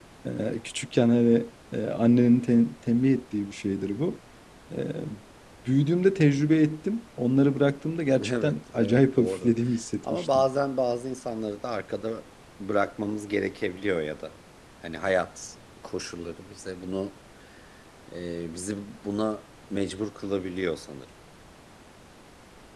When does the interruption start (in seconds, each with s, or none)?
8.2 s